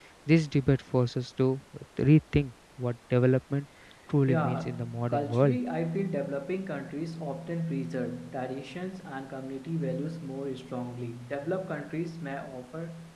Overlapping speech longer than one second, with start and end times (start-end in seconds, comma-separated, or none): 4.3-5.6